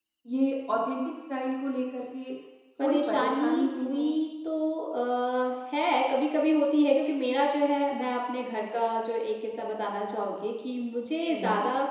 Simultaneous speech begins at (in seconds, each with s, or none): 2.8 s